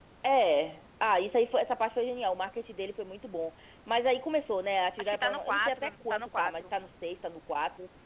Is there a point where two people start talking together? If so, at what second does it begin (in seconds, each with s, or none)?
5.0 s